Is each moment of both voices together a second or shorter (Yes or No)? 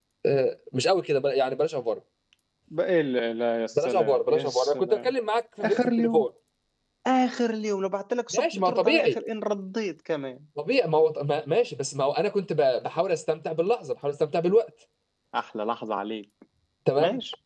No